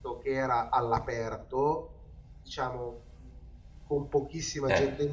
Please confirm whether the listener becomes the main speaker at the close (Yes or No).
No